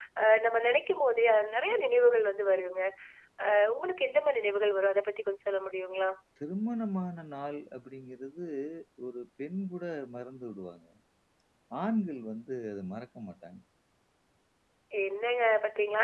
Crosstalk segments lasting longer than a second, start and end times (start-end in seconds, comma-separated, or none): none